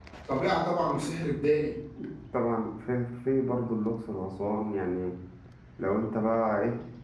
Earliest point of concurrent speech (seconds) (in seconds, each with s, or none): none